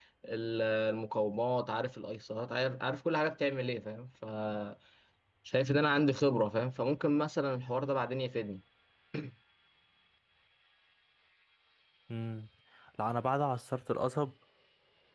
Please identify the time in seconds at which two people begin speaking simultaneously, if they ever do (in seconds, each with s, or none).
none